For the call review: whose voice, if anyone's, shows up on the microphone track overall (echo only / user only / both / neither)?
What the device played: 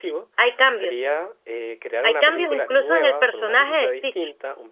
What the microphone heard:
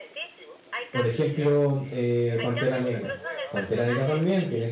both